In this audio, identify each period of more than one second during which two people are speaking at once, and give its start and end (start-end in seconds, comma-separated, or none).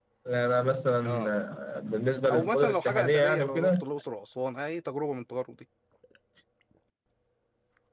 2.3-3.8